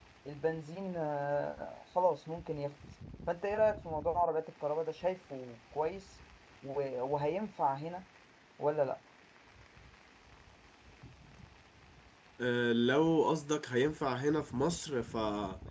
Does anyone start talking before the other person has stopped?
No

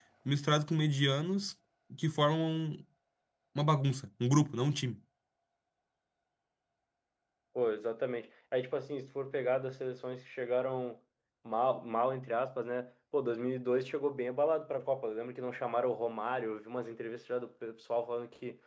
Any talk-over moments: No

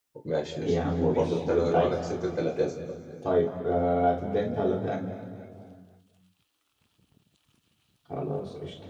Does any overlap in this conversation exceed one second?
Yes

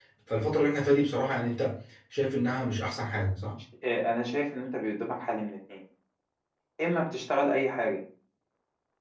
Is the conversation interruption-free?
Yes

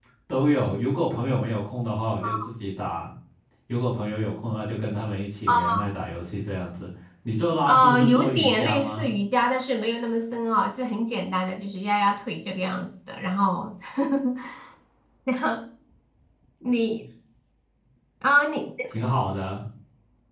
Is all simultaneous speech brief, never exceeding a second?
No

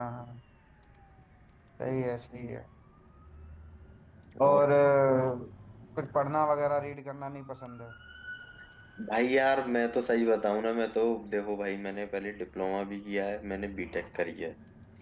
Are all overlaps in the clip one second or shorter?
Yes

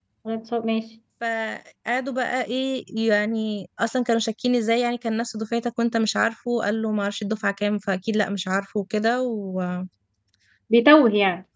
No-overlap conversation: Yes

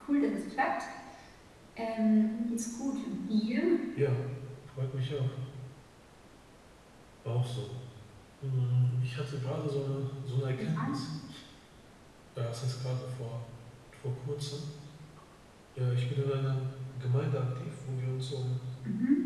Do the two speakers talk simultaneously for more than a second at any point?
No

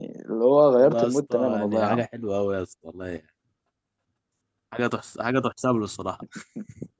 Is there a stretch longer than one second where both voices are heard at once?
Yes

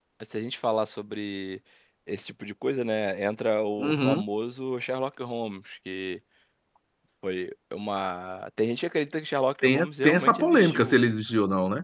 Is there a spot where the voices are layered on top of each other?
Yes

